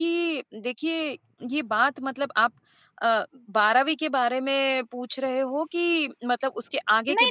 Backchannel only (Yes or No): No